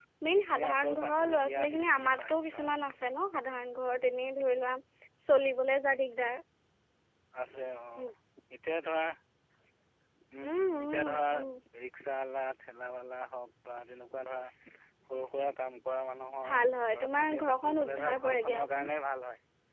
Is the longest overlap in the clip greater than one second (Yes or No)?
Yes